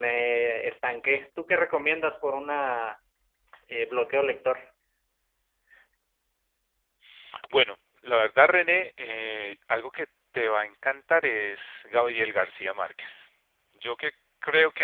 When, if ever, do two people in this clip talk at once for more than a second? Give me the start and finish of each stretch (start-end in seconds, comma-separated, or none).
none